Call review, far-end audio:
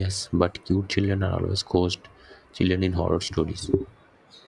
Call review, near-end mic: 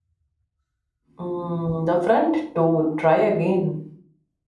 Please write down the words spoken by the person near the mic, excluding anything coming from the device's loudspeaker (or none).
mm, the front door, try again.